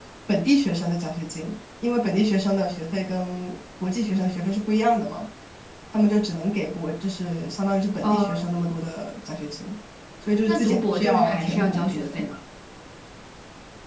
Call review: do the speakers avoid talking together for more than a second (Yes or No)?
No